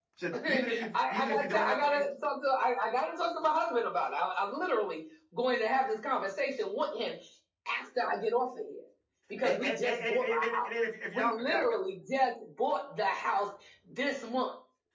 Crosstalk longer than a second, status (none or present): present